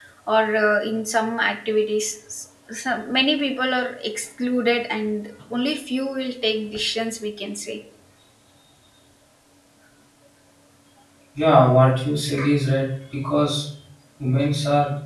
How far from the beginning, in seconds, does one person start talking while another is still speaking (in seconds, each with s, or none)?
none